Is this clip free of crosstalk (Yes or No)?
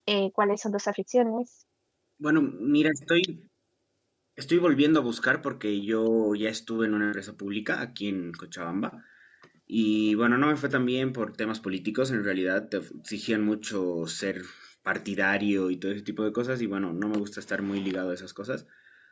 Yes